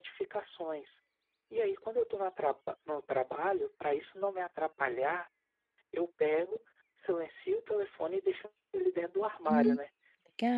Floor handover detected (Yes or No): Yes